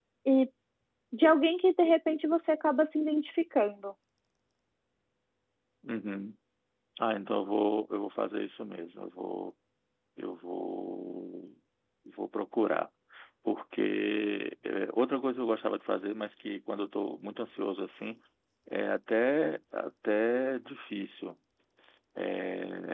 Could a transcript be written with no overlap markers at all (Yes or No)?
Yes